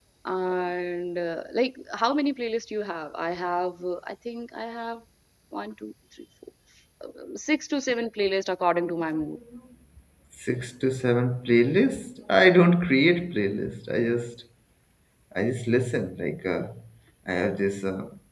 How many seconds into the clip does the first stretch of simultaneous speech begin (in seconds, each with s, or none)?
none